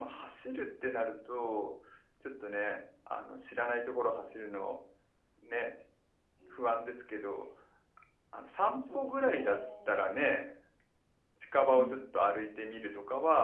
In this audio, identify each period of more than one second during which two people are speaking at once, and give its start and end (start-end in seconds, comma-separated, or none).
8.7-10.0